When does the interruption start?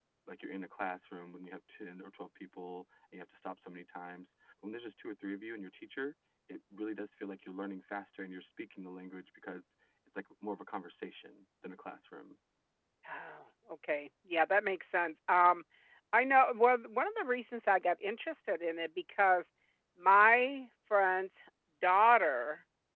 none

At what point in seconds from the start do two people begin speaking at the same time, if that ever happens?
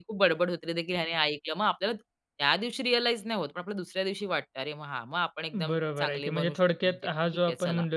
5.5 s

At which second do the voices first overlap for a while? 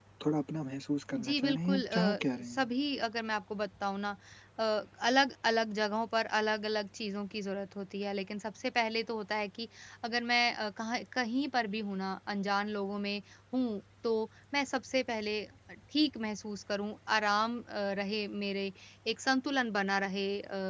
1.2 s

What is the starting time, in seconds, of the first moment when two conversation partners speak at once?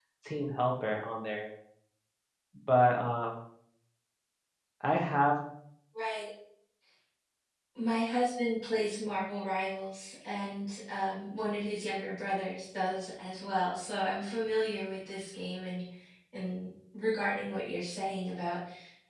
none

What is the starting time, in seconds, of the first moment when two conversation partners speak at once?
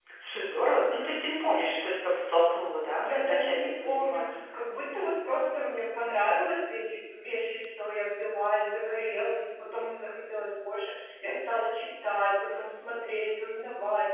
3.0 s

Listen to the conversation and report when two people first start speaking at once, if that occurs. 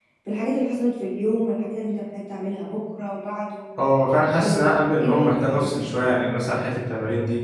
4.4 s

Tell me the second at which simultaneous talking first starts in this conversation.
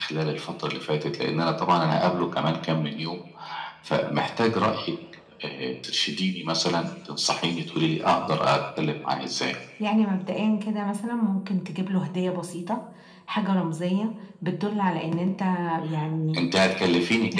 none

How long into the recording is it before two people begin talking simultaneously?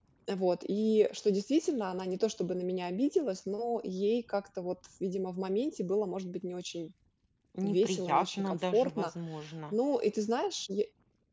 7.6 s

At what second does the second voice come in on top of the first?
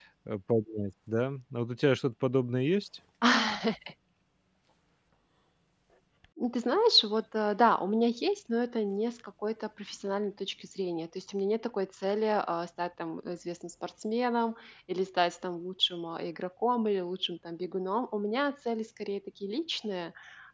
none

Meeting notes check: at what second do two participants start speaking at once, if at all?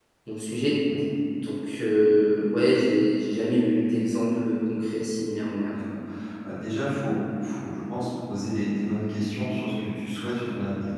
none

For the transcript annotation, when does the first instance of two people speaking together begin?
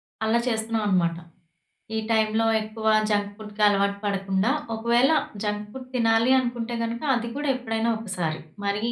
none

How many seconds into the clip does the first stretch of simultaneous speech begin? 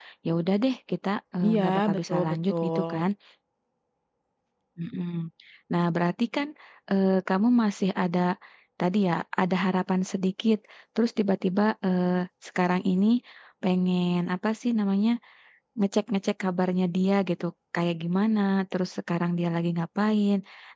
1.4 s

